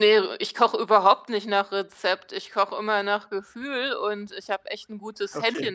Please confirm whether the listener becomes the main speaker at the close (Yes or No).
No